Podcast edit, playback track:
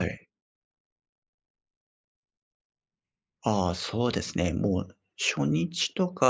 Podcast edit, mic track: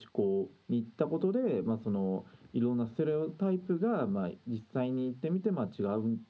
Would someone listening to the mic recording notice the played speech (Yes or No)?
No